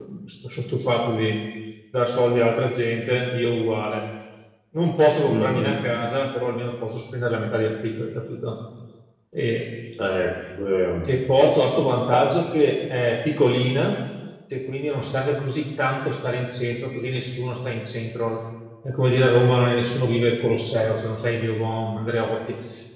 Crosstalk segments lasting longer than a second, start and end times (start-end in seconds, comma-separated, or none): none